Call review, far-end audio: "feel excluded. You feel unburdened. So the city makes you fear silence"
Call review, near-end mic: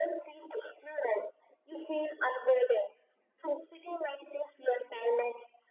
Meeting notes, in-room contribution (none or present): none